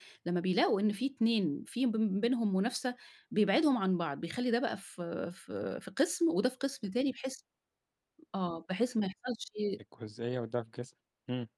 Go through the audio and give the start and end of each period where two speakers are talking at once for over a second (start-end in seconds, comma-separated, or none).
none